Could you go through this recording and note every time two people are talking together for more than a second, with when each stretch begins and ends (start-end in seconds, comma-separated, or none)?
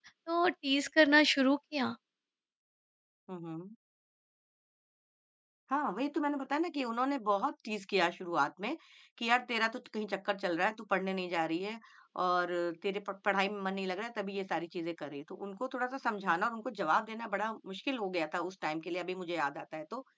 none